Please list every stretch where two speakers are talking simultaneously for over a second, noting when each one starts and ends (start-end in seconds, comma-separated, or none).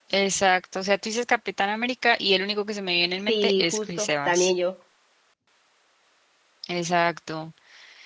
3.3-4.5